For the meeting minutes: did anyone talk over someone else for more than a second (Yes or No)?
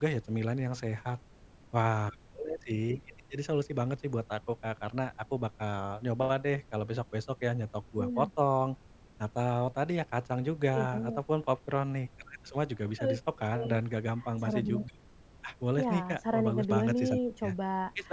Yes